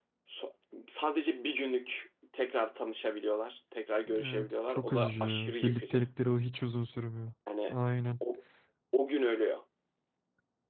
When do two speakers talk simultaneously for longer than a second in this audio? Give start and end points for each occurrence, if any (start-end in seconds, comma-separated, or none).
4.2-6.0